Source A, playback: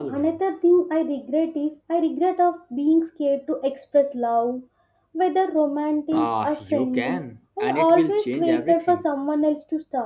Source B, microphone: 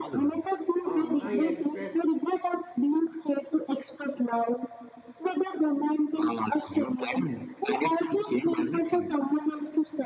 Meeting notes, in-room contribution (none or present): present